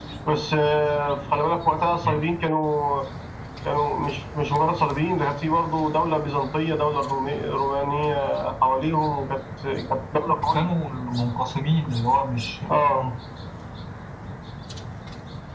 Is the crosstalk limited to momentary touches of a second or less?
Yes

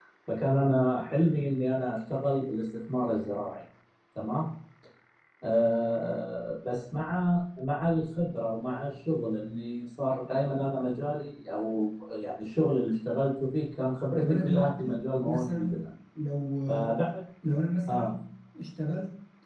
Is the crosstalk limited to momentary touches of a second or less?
No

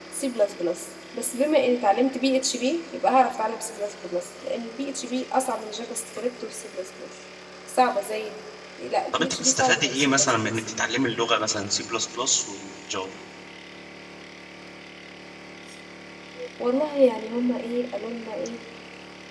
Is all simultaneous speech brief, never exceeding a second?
No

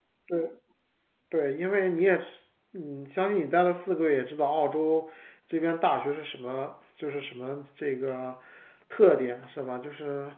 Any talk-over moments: No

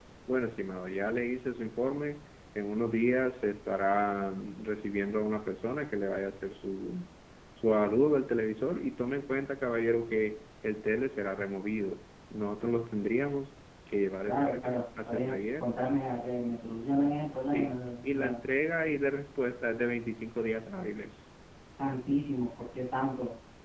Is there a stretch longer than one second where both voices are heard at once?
Yes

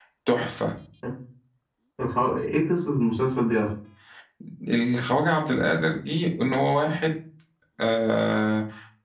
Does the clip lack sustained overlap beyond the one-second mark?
Yes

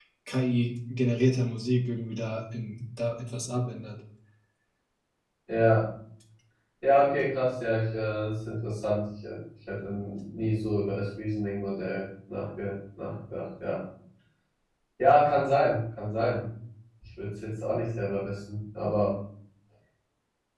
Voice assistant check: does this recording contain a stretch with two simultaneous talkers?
No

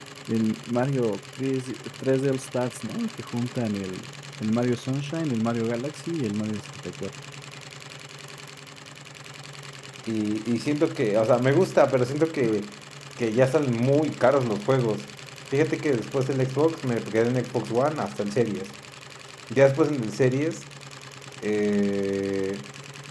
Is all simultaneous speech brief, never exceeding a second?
Yes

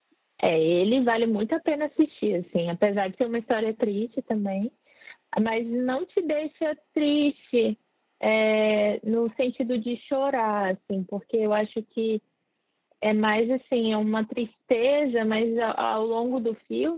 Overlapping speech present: No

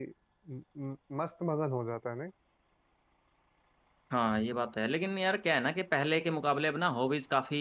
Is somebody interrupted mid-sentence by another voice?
No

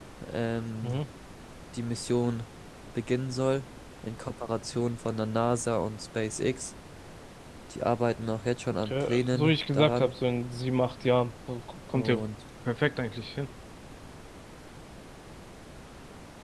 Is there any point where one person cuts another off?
Yes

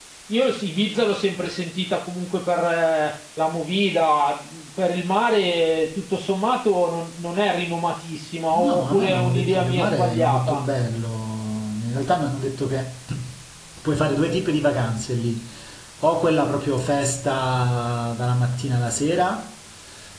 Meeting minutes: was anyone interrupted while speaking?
Yes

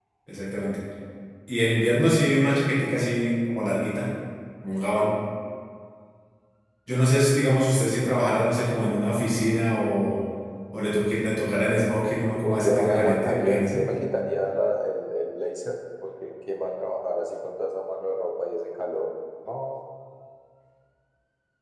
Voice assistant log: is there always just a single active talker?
No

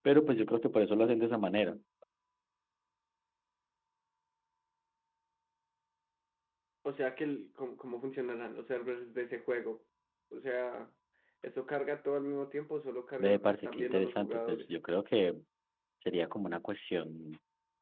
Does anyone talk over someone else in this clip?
Yes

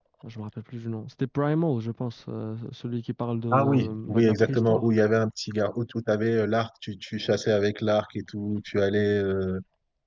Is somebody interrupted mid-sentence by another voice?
Yes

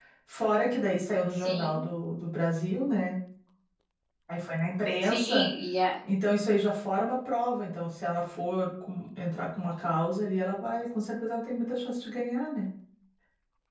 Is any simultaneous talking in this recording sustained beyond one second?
No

